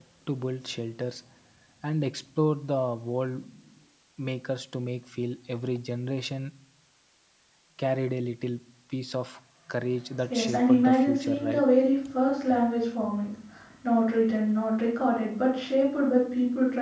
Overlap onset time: 10.3 s

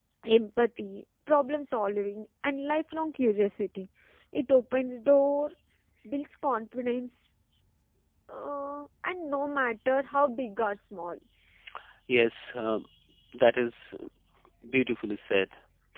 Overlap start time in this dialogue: none

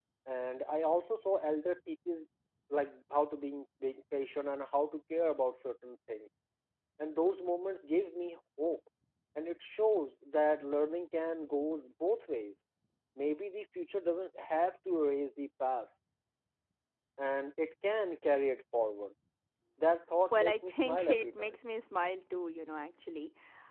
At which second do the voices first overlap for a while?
20.3 s

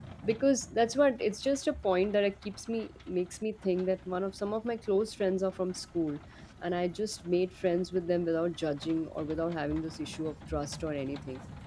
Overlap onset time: none

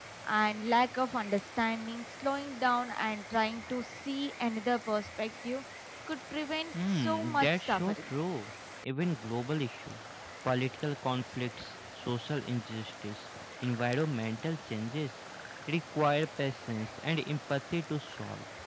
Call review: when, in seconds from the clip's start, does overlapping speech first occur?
6.9 s

